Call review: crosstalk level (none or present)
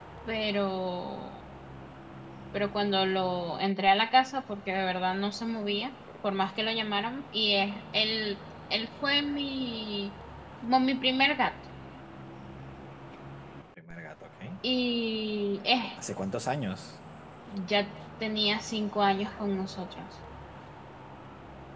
none